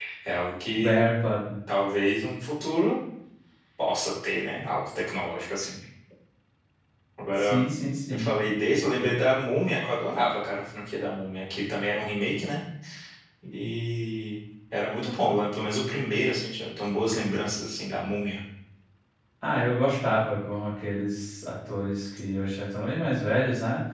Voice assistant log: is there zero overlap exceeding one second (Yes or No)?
Yes